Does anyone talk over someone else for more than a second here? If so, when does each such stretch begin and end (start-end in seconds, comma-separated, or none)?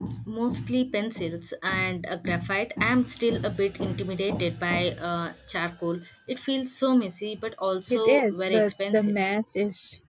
7.9-9.1